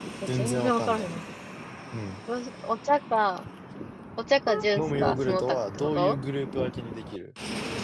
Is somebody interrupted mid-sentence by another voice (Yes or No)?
Yes